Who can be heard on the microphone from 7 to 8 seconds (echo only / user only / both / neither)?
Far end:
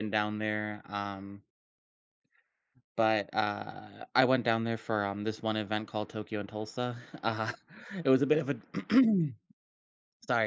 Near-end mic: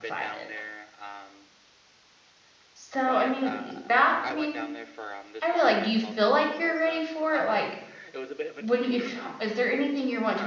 both